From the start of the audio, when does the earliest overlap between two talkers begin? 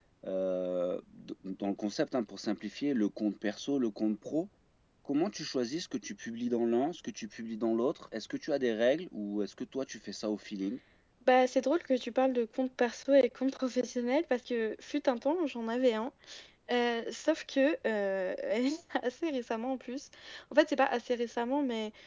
none

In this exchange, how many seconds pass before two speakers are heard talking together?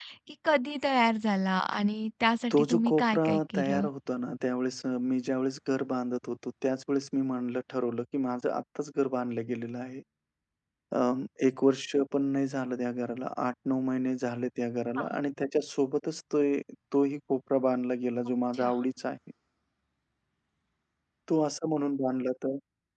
2.5 s

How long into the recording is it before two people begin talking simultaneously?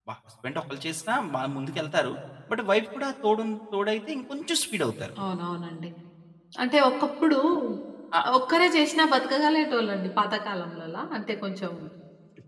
none

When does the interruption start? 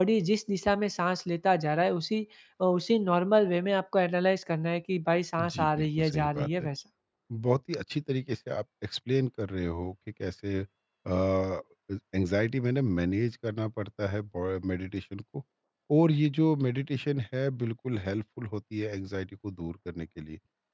5.4 s

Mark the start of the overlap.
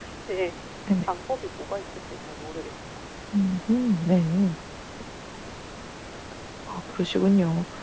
none

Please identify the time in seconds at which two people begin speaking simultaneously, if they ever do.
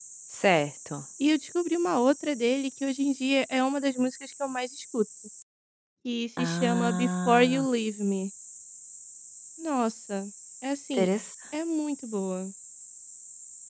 6.4 s

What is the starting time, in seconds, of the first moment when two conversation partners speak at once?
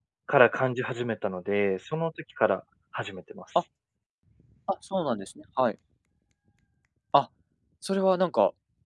none

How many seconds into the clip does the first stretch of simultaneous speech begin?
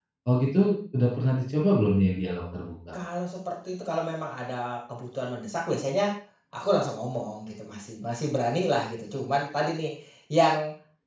none

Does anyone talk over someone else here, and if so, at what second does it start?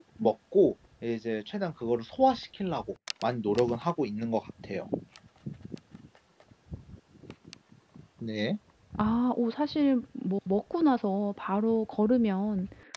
none

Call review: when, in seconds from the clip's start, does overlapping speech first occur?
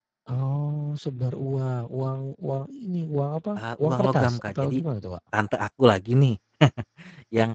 3.6 s

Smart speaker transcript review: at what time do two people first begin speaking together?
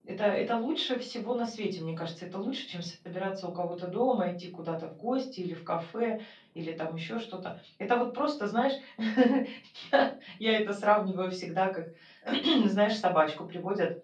none

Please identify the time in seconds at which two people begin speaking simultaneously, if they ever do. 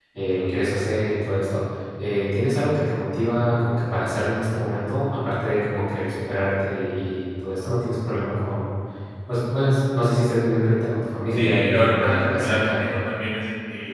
11.3 s

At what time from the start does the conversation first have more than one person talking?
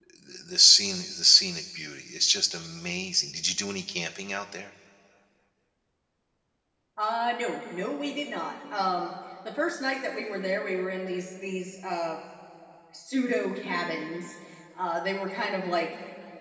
none

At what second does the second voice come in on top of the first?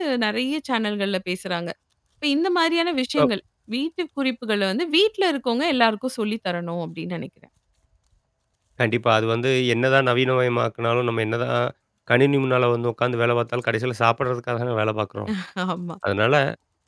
none

